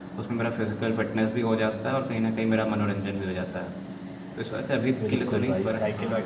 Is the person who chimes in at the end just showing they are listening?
No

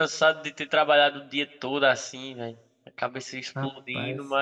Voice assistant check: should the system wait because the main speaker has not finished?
Yes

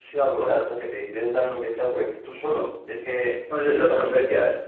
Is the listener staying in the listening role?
No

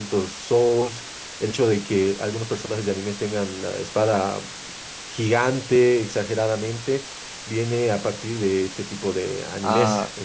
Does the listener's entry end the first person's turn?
Yes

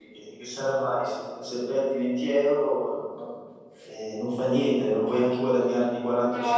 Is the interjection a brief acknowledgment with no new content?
No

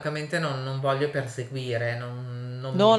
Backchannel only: No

